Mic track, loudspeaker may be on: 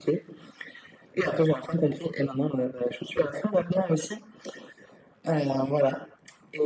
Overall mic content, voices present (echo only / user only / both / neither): echo only